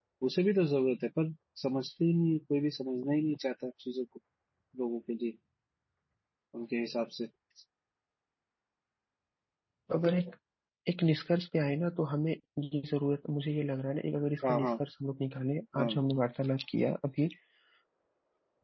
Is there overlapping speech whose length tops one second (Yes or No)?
No